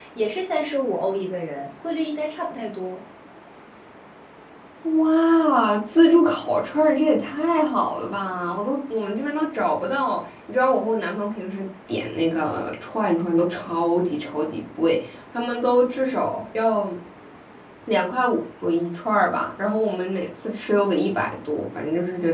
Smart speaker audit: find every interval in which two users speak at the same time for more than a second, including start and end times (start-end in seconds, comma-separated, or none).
none